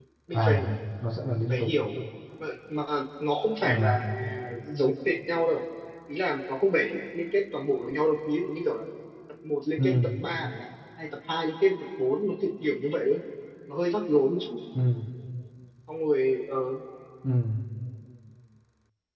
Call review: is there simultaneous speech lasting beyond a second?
No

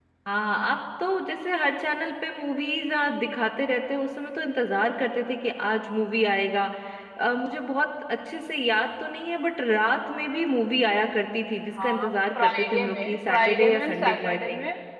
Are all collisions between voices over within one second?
No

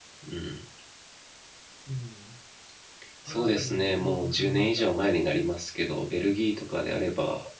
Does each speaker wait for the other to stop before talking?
No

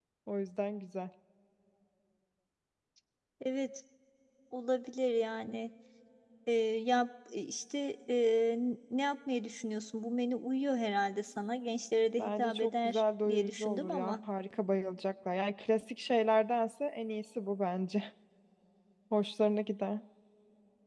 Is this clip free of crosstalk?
No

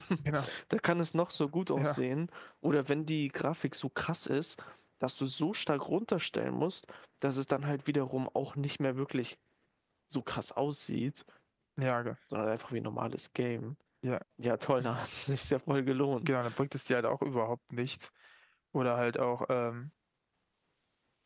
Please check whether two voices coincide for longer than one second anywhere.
No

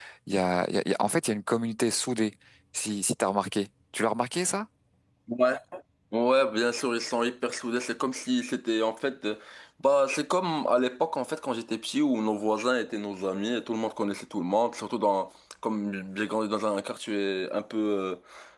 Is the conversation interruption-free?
Yes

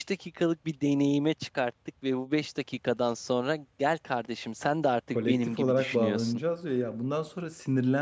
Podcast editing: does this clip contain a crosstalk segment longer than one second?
Yes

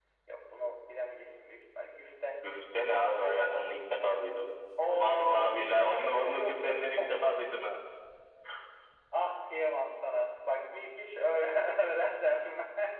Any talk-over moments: Yes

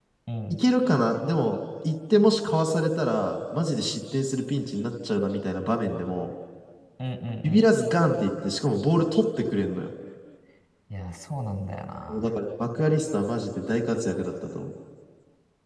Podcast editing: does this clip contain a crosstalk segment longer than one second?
No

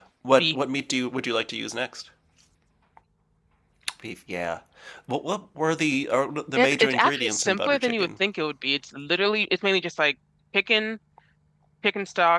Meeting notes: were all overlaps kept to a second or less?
No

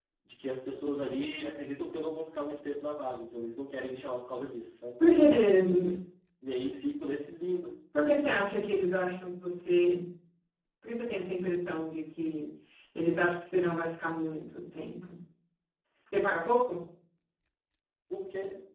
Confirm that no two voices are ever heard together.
Yes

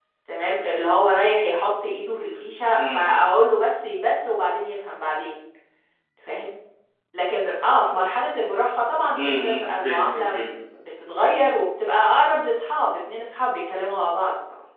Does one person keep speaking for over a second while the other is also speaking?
Yes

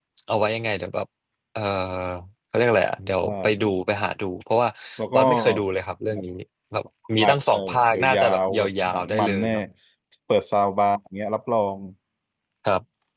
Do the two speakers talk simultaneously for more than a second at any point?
Yes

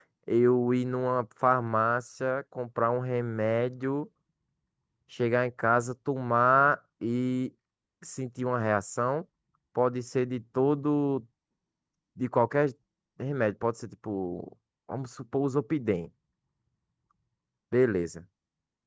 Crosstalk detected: No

